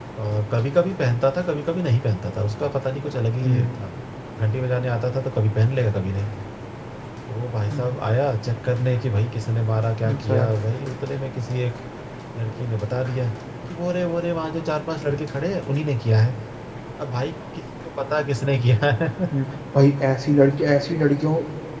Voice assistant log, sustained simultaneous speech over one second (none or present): none